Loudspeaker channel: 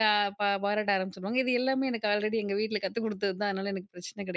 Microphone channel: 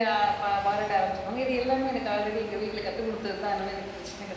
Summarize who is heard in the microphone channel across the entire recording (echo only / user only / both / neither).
echo only